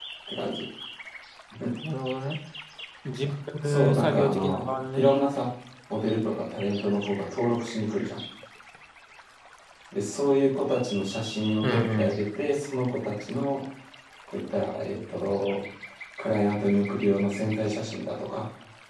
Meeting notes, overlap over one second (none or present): present